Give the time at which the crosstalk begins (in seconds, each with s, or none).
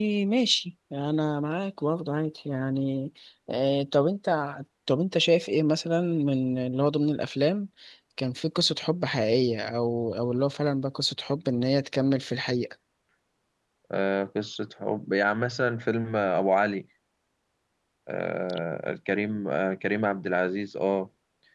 none